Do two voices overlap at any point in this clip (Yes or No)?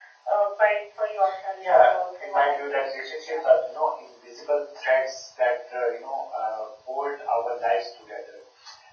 Yes